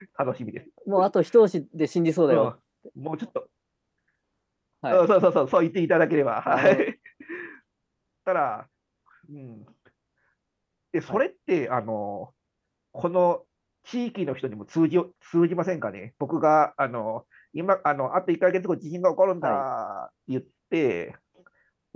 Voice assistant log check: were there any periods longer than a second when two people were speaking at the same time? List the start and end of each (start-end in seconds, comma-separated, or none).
none